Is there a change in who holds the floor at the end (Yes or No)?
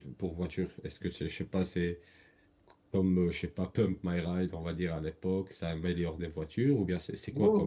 Yes